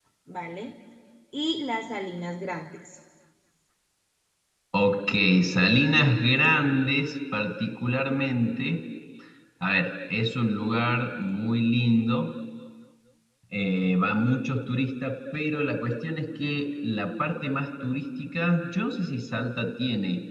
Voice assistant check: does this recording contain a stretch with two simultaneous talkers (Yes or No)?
No